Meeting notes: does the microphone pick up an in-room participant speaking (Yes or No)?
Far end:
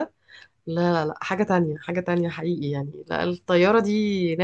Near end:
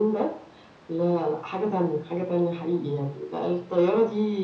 No